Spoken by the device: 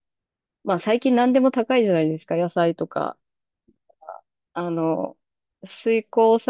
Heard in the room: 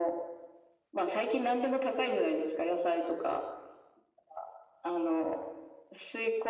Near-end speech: none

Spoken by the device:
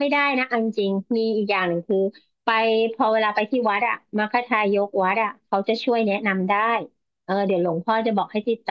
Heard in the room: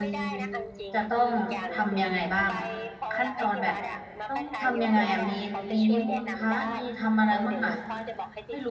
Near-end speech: present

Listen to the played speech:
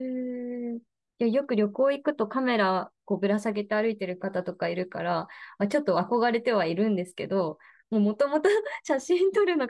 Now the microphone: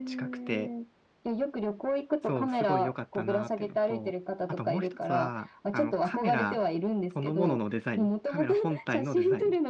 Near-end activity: present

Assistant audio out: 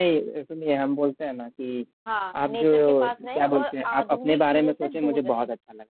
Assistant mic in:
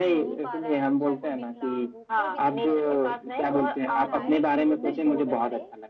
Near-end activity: present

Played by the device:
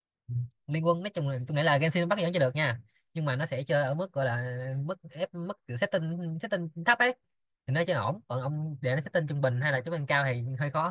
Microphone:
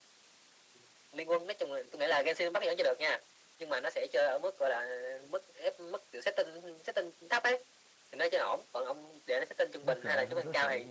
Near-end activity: present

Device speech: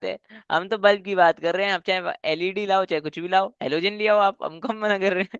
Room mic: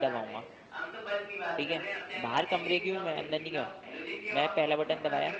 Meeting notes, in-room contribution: present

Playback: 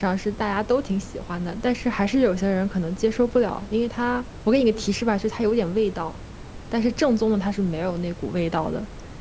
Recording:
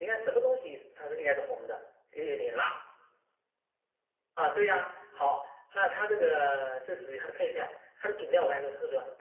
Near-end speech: present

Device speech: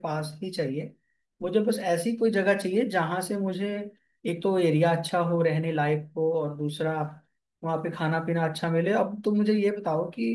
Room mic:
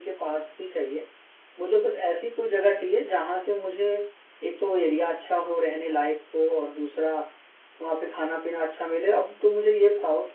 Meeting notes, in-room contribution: none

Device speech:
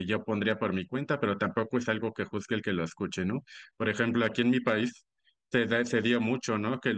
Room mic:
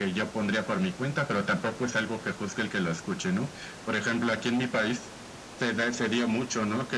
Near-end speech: none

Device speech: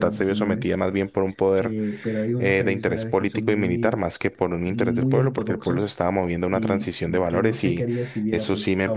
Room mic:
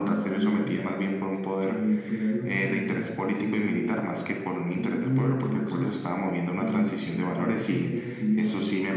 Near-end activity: none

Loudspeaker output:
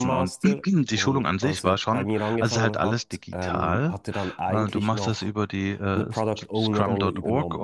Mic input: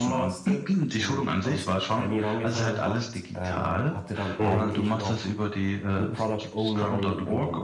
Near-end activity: present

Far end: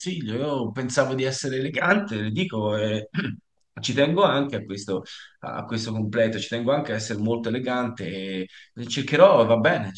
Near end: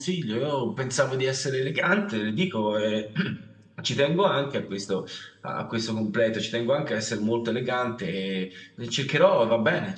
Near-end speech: none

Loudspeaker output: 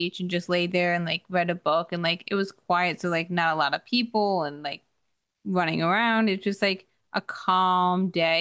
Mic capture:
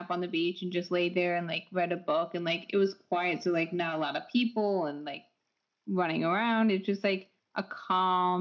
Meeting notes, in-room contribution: none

